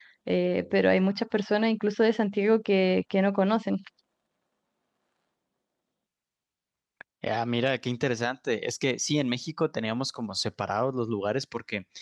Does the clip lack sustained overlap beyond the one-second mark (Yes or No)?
Yes